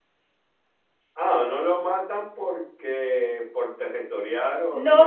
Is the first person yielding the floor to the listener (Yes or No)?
Yes